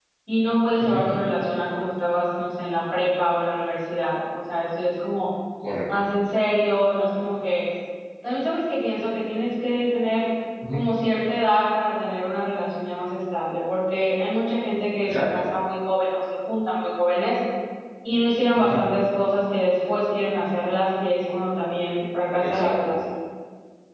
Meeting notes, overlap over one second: none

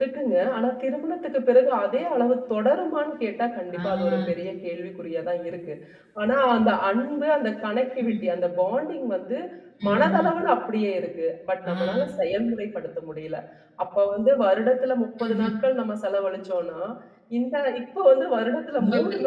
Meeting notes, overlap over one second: none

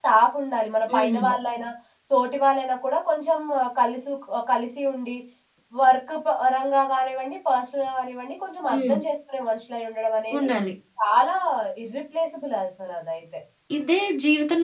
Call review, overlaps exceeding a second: none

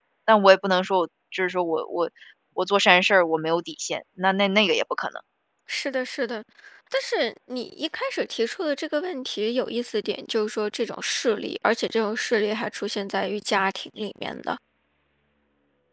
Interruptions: none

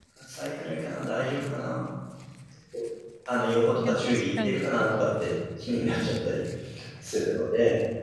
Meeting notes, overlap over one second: present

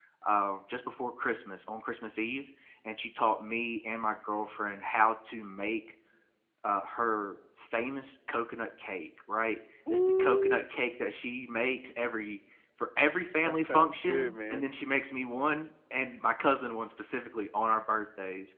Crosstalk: present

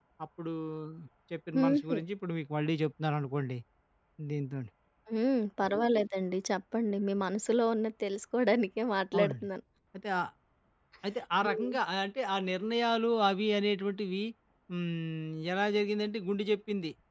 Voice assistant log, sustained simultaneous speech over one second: none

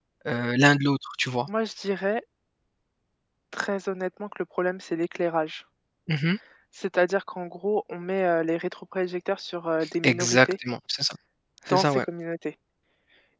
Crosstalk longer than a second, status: none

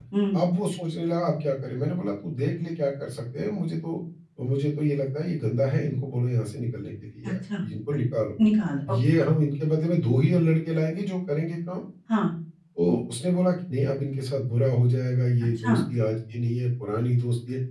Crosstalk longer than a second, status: none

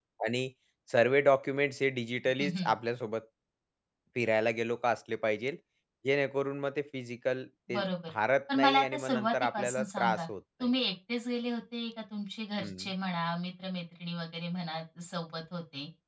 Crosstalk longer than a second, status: present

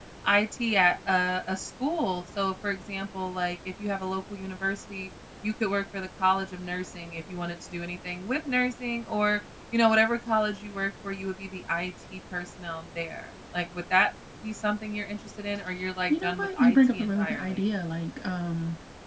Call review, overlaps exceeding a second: present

